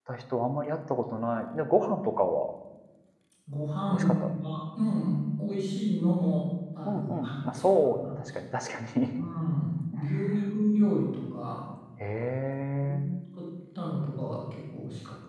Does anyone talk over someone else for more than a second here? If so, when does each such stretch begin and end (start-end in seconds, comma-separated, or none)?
6.8-8.1